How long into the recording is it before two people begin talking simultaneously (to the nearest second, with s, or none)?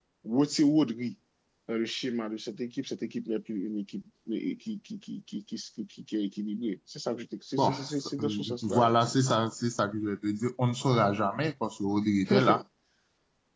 8 s